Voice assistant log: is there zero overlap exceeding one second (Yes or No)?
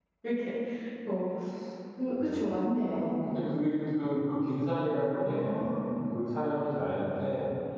Yes